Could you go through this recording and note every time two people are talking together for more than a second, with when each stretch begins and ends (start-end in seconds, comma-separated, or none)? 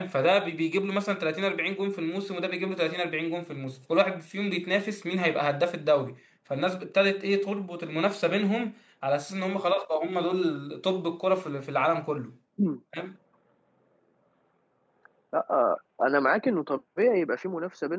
none